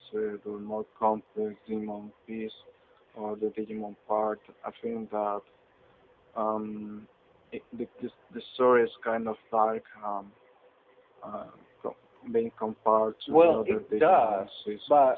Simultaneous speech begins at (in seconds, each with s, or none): 13.3 s